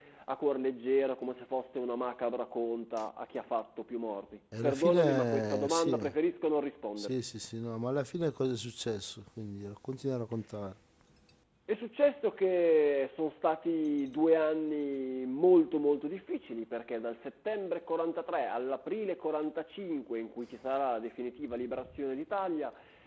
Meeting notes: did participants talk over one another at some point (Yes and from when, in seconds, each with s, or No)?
Yes, from 4.6 s